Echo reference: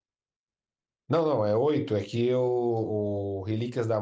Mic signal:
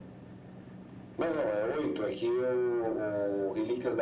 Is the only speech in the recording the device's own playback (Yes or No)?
Yes